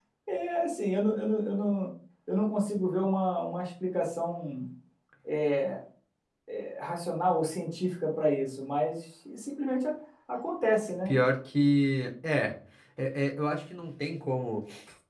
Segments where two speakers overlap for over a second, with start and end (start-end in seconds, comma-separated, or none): none